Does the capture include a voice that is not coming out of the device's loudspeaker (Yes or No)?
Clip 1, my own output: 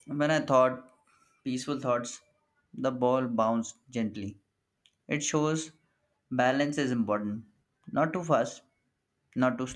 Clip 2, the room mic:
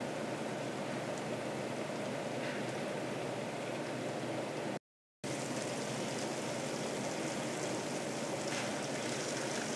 No